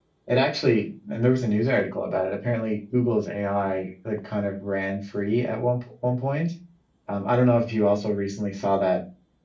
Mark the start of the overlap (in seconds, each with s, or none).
none